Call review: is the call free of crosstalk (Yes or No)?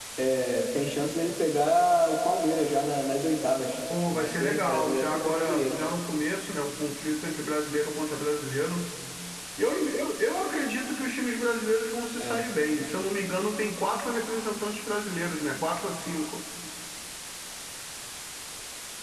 No